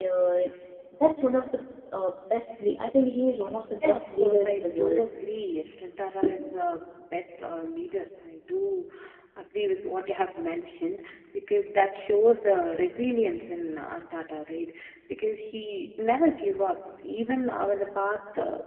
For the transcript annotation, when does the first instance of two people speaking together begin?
3.8 s

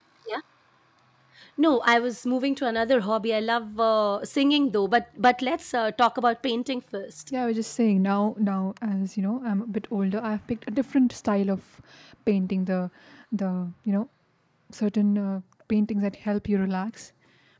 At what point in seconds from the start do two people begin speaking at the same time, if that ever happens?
none

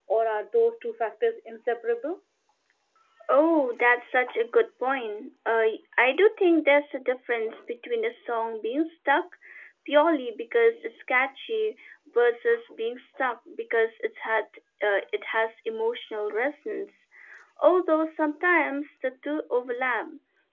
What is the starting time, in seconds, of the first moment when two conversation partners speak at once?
none

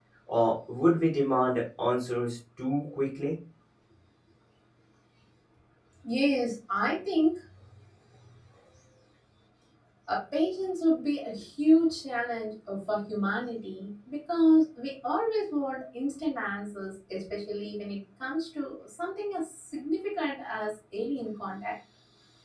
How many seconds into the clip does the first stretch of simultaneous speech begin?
none

